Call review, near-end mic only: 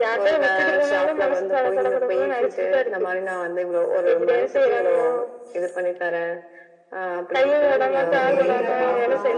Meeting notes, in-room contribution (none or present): present